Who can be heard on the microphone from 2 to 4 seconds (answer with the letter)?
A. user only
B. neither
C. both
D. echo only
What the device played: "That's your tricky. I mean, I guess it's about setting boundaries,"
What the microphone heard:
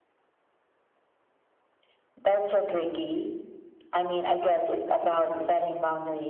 D